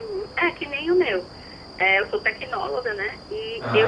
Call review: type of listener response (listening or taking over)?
listening